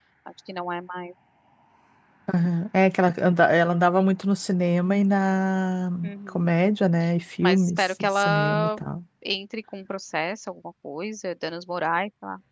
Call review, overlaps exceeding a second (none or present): present